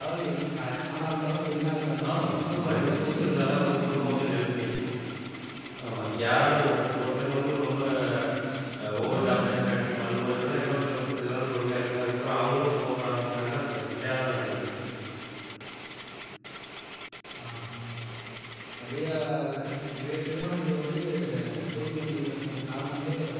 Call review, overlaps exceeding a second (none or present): present